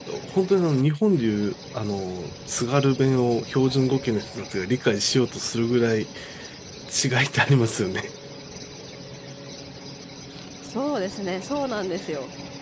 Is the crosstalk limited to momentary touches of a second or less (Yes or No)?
Yes